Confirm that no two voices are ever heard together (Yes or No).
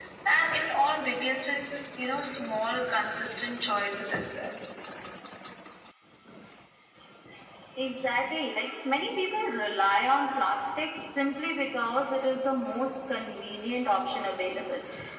Yes